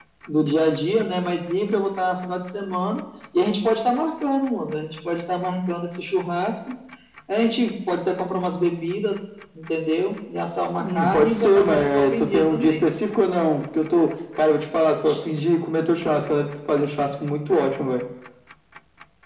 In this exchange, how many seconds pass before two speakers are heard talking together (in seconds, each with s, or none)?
10.8 s